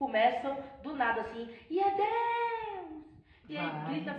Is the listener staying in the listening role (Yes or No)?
Yes